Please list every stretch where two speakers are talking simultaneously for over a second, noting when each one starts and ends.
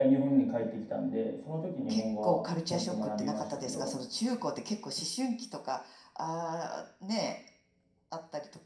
1.9-3.9

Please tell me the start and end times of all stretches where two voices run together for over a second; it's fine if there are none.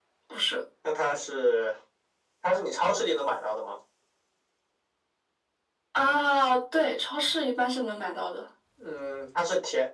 none

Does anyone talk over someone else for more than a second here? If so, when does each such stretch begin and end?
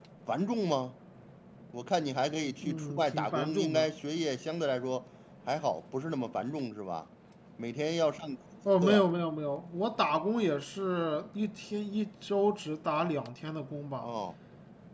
2.6-3.9

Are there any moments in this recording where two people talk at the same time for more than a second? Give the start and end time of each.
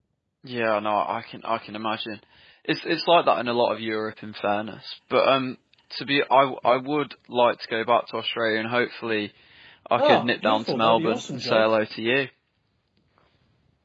10.0-11.7

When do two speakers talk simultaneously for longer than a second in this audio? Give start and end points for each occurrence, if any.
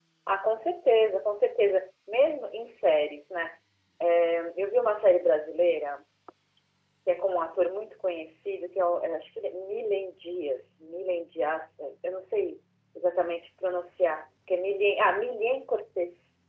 none

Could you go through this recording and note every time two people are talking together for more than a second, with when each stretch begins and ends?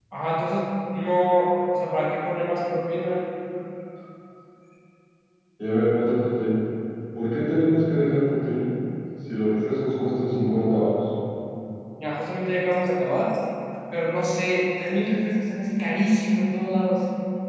none

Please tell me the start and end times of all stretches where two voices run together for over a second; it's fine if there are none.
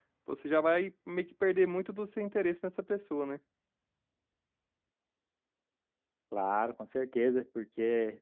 none

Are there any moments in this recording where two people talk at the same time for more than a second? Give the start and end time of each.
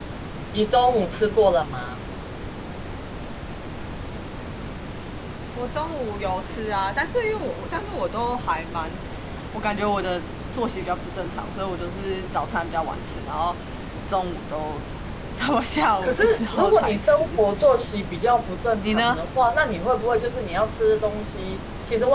16.0-17.4

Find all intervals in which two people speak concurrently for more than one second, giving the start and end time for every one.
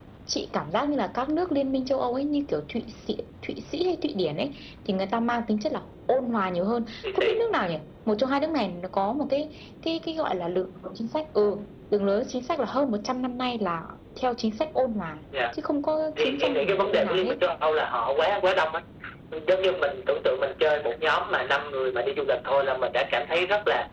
16.2-17.4

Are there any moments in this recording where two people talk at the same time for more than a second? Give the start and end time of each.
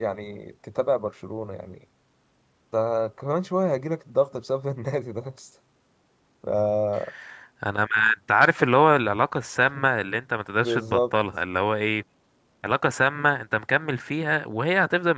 none

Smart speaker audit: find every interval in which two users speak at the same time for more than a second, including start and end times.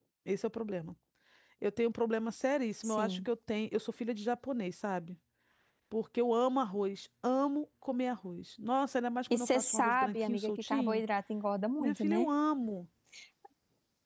9.3-11.0

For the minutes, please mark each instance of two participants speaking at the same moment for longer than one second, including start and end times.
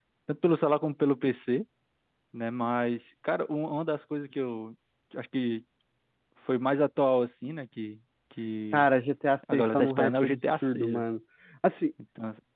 9.5-11.0

